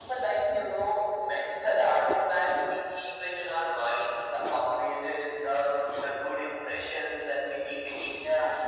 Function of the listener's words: listening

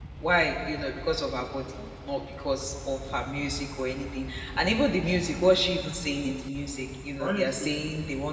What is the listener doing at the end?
listening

